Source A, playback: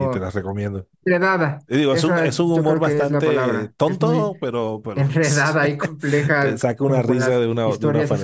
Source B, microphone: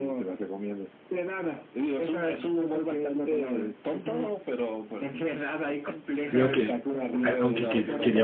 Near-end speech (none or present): present